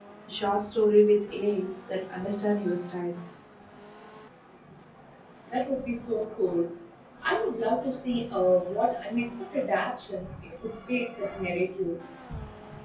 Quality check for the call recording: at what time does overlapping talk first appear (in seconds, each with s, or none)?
none